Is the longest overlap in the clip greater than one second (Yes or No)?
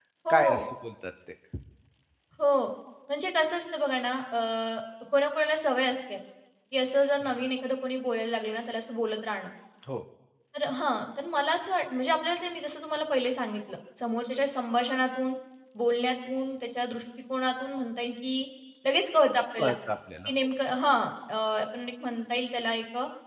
No